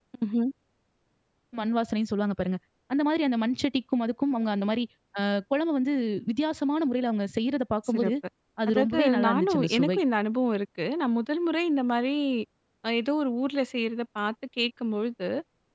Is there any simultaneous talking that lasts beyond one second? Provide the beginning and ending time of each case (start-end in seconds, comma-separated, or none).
8.7-10.0